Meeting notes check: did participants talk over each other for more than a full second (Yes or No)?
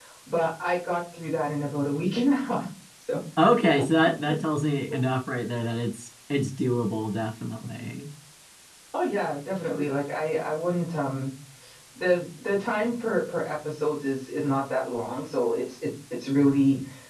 No